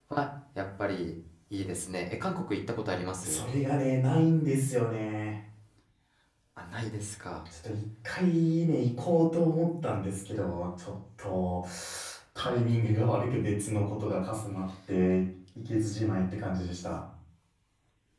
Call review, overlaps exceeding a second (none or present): none